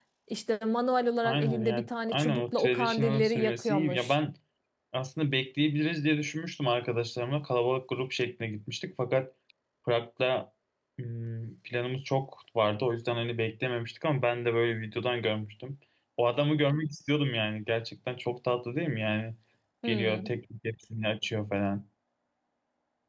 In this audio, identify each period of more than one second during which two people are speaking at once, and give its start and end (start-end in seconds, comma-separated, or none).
1.2-4.2